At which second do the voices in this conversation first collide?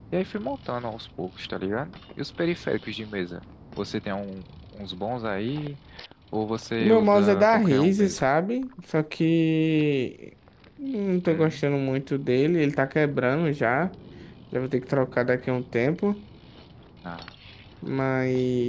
7 s

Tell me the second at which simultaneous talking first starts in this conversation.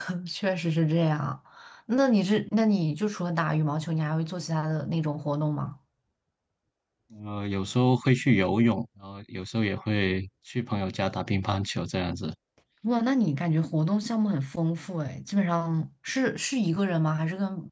none

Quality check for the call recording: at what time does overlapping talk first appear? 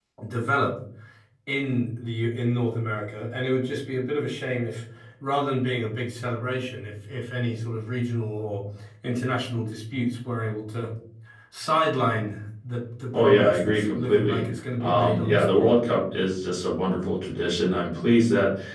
13 s

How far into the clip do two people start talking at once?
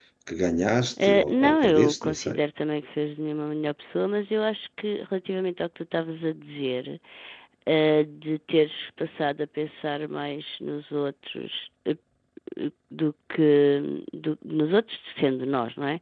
1 s

